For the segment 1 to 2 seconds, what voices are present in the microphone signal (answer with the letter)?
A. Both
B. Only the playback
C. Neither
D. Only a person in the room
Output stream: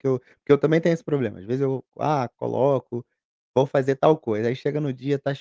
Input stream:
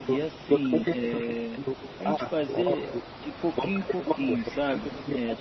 A